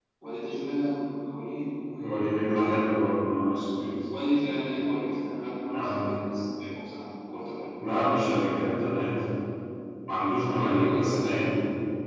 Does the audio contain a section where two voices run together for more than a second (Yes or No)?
Yes